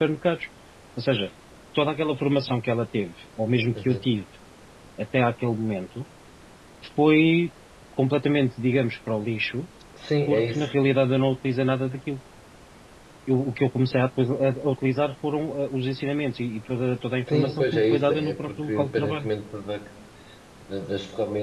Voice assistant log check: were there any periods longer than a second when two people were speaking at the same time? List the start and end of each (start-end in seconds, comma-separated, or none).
17.3-19.3